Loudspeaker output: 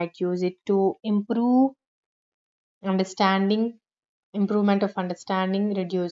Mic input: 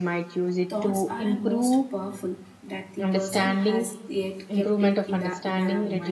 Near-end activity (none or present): present